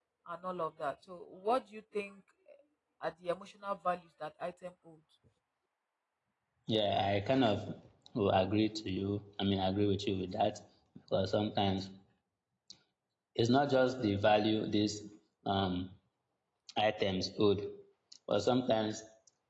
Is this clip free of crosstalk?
Yes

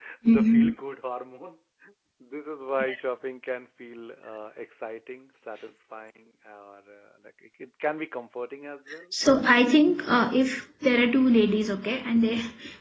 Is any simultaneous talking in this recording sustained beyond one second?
No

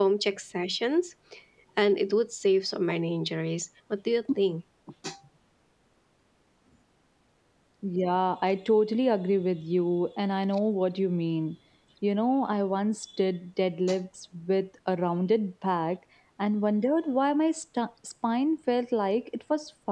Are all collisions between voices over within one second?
Yes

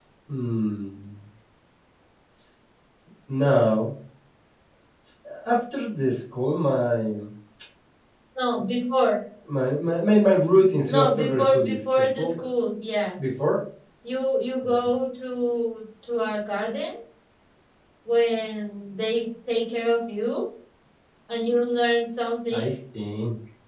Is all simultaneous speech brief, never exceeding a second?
No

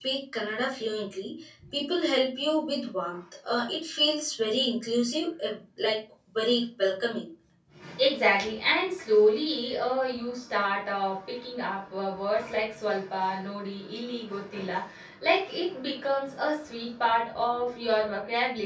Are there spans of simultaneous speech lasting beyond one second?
No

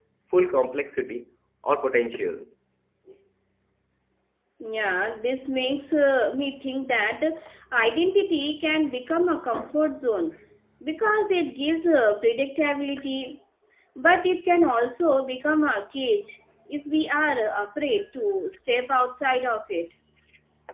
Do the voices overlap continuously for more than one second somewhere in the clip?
No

